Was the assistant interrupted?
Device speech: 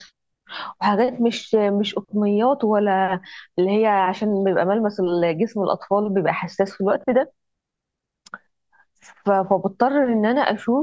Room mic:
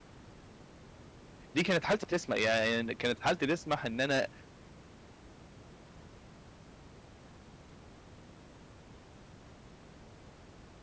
Yes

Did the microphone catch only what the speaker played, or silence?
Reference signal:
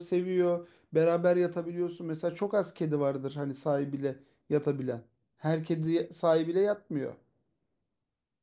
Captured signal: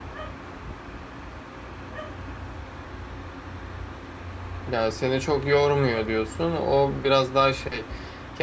No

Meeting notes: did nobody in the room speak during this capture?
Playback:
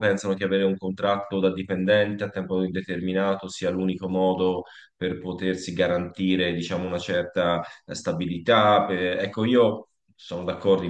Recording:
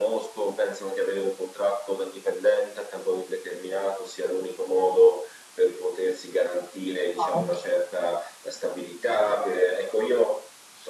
No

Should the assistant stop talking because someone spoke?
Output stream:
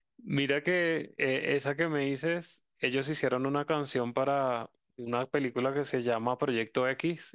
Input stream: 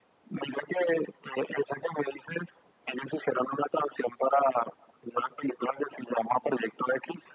No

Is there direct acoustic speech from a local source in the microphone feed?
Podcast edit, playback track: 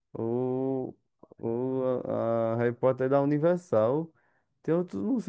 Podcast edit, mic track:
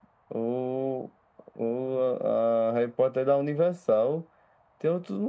No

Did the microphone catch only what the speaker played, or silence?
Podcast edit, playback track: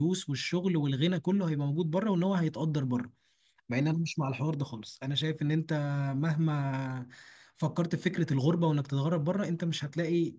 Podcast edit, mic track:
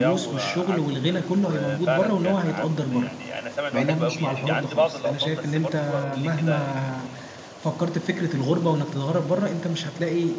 No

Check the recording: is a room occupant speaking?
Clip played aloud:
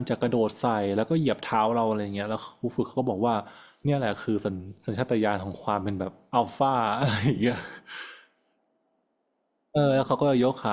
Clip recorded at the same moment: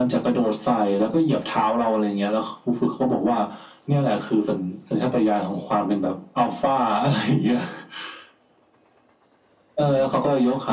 No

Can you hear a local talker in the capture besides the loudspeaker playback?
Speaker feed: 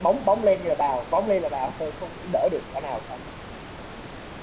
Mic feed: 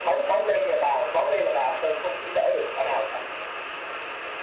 No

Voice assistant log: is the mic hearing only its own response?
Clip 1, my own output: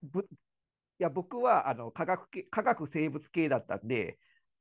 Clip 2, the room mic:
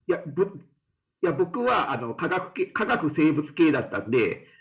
Yes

